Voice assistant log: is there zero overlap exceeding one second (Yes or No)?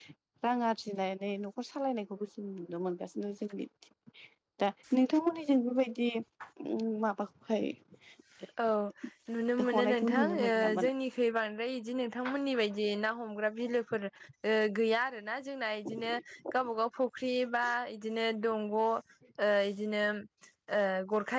No